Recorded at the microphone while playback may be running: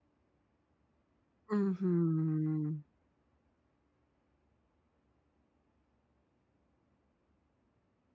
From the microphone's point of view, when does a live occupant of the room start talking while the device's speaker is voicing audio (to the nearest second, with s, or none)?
1 s